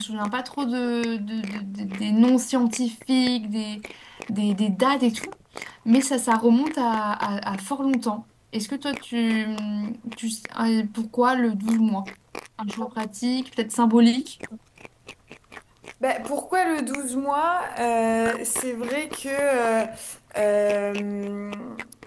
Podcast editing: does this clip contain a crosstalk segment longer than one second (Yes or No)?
No